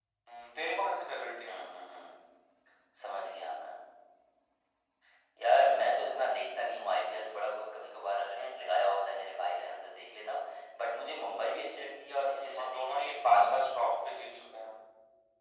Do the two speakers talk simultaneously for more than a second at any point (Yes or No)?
Yes